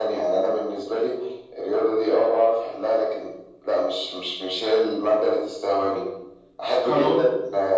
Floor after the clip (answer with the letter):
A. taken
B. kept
B